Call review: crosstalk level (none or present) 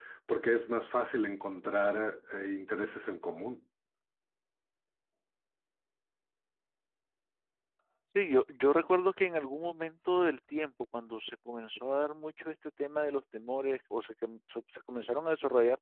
none